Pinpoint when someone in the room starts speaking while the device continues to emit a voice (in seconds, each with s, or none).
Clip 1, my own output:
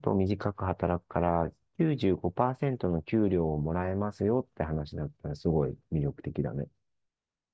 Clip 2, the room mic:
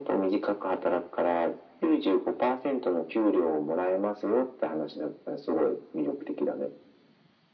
none